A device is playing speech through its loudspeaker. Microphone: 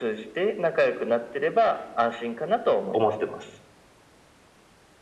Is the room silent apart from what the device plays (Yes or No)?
No